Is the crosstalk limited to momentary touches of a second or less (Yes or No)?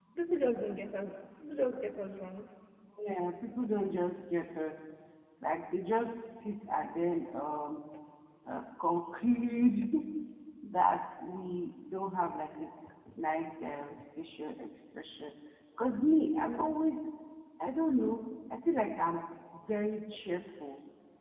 Yes